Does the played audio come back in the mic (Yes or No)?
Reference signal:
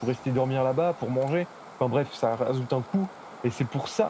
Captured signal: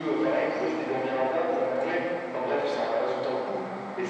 Yes